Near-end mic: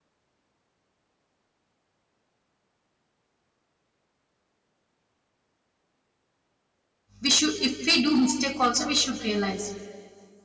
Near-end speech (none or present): present